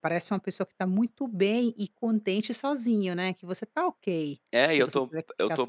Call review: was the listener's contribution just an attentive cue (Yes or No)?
No